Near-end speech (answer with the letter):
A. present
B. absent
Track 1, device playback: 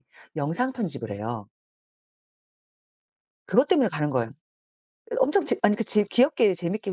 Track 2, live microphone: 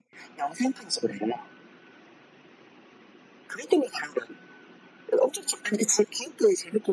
B